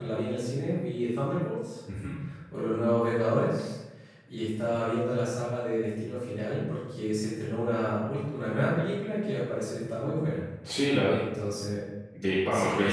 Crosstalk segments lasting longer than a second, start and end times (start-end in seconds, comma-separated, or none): none